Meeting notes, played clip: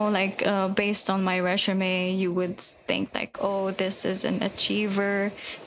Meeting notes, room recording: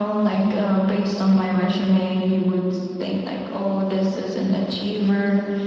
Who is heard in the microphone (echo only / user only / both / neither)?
echo only